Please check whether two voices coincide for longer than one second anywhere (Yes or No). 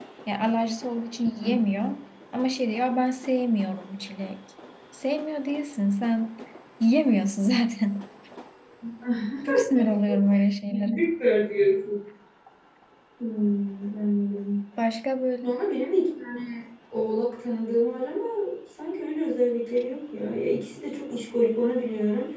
No